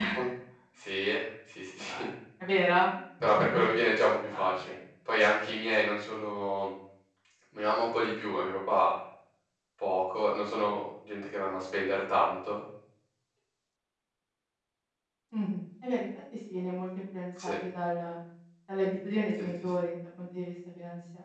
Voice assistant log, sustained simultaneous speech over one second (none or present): none